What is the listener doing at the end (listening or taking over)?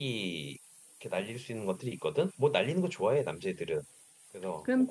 taking over